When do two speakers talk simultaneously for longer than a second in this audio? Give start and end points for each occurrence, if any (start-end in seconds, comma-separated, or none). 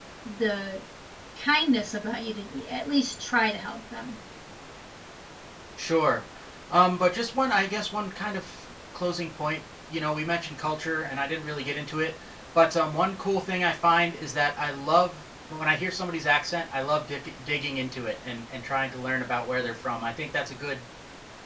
none